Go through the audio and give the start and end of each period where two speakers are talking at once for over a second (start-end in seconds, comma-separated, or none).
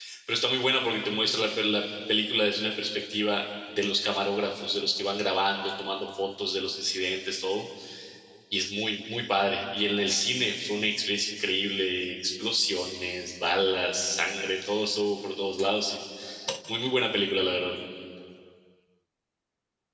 none